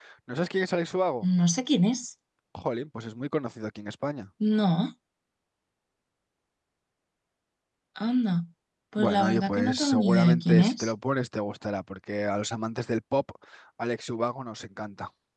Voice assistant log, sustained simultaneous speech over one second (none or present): present